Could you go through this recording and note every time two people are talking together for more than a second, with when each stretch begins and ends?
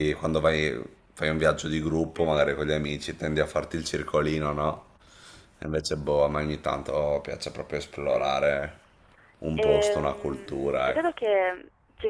9.6-11.0

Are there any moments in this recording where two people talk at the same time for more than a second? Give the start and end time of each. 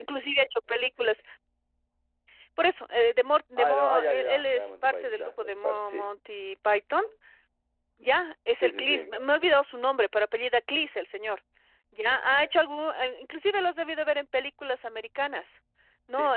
3.6-6.1

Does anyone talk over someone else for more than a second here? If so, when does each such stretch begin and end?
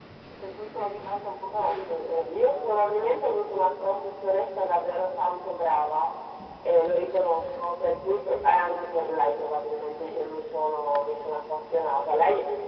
1.6-4.1

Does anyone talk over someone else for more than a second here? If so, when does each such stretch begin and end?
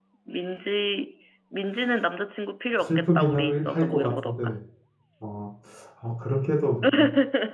2.8-4.5

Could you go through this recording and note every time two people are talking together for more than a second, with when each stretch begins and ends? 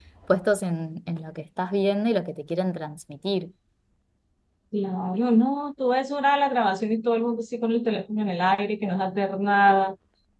none

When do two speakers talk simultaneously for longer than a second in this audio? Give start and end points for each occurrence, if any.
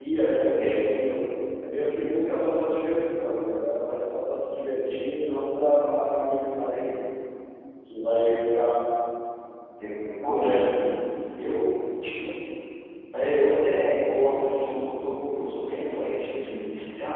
none

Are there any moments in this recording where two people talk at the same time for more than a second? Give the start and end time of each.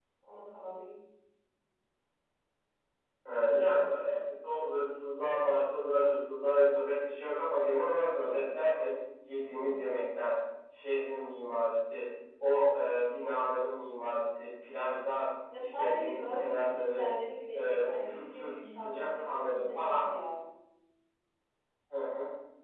15.6-17.1, 17.6-20.1

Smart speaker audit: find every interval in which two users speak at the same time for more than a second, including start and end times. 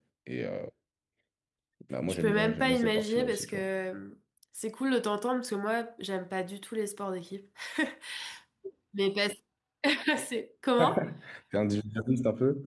2.1-3.6

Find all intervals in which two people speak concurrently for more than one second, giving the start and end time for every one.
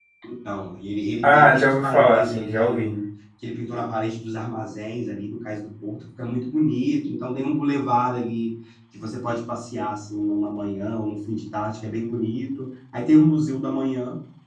1.2-2.9

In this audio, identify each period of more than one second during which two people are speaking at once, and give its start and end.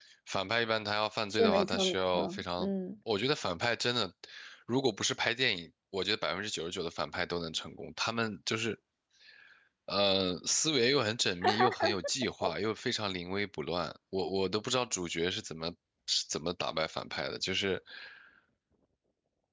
1.3-2.7

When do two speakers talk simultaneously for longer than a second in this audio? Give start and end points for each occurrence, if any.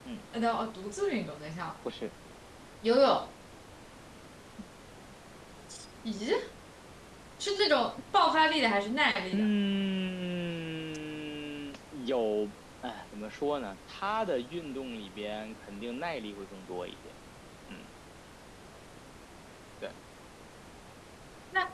none

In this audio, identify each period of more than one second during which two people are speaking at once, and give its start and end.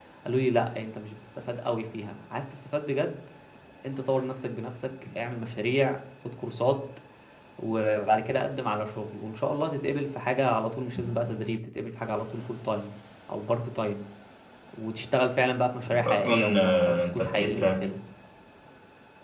15.9-17.9

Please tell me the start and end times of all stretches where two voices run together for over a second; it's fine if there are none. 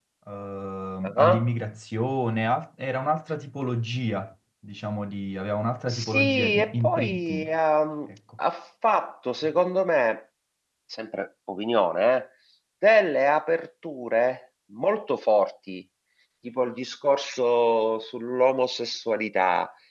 5.9-7.5

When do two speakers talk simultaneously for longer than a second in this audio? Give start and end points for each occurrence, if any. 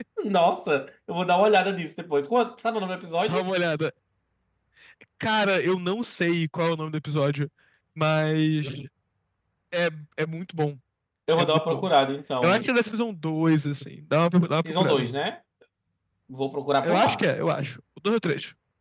none

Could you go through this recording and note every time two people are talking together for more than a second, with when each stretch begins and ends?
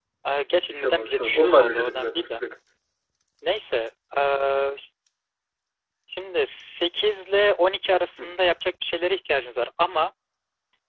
0.7-2.4

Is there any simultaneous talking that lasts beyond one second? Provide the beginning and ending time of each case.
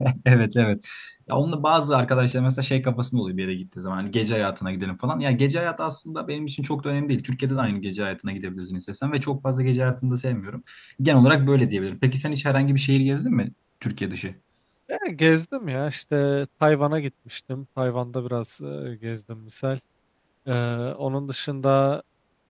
none

